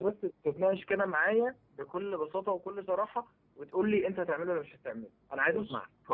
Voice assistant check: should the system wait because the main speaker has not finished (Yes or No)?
No